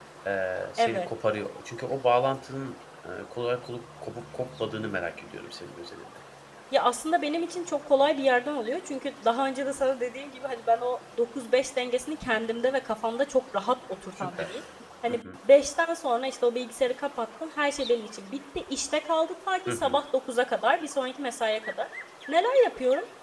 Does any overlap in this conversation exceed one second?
No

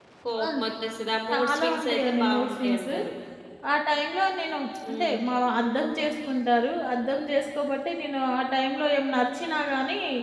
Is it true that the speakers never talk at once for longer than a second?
No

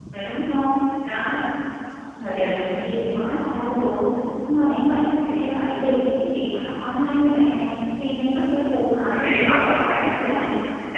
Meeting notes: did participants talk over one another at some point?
Yes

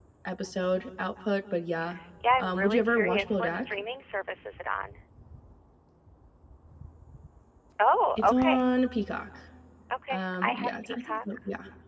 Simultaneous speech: Yes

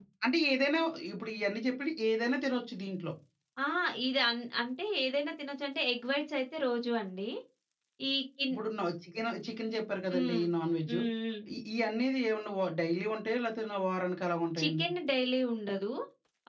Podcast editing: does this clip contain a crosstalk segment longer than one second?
No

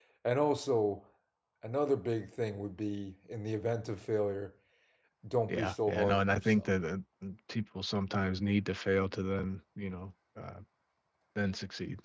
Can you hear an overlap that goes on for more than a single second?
Yes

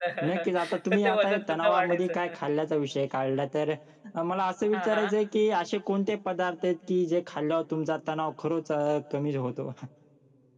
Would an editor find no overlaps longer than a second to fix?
No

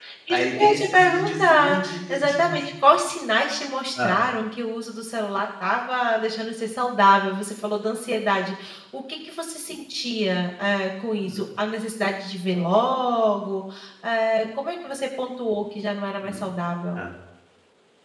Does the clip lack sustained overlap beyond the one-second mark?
No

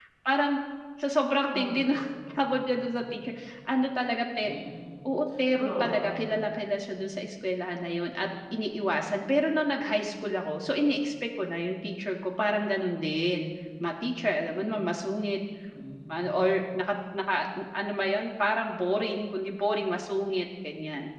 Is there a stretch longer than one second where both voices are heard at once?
Yes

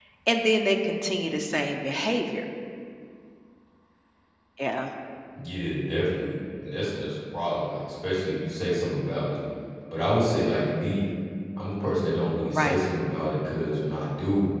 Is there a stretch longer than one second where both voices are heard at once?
No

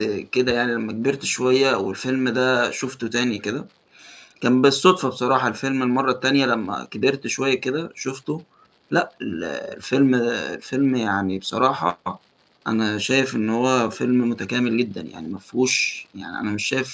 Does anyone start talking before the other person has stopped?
No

